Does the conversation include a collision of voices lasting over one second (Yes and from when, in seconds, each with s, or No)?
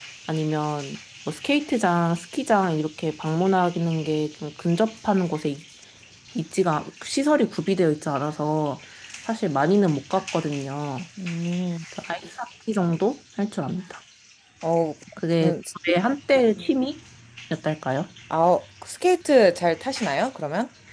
No